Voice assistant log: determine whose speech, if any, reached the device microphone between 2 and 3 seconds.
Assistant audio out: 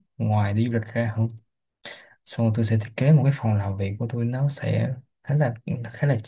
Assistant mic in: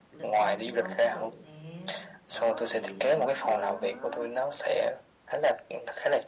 both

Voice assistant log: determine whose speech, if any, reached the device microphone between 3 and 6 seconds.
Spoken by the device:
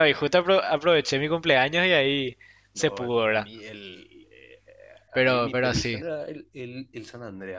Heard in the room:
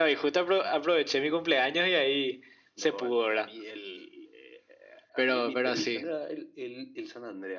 echo only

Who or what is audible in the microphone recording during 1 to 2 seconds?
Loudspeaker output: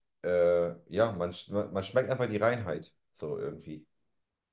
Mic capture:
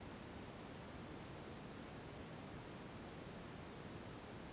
neither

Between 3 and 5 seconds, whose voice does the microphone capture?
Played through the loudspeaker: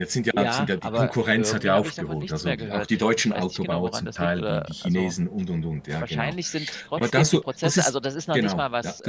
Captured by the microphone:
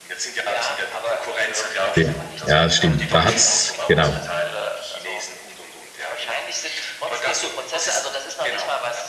both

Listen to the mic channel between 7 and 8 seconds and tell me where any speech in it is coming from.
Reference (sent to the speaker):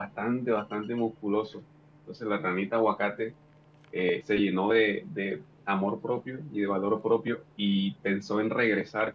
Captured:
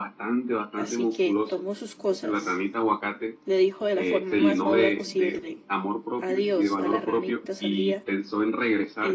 both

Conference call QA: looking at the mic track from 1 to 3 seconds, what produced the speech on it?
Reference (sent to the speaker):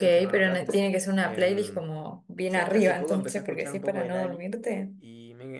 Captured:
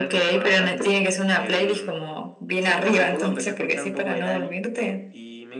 echo only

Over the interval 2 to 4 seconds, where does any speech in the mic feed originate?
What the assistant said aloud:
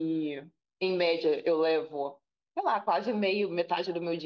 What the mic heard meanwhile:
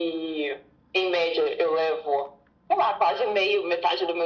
echo only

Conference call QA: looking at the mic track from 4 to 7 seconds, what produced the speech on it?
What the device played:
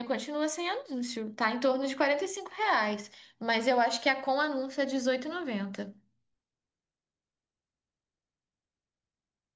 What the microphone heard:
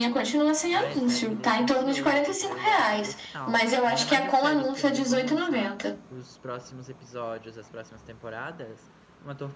both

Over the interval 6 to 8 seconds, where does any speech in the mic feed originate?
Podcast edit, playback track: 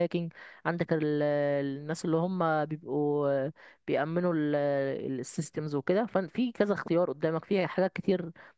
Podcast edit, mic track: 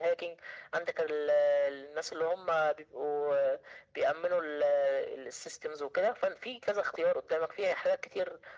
echo only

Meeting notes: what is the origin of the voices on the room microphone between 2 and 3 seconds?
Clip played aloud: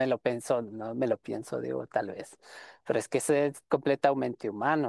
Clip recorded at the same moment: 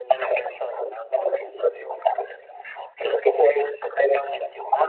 echo only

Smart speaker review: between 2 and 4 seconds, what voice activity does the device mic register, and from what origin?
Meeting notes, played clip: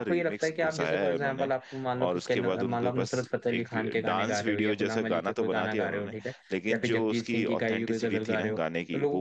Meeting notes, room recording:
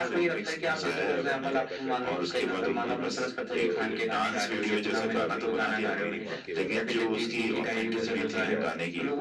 both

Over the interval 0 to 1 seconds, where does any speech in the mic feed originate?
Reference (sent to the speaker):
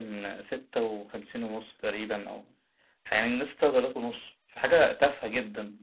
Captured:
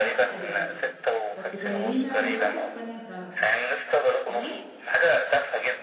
both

